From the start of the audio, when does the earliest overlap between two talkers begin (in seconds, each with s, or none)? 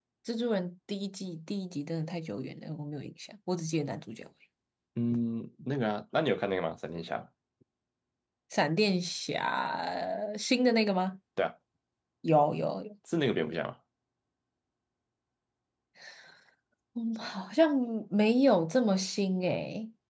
none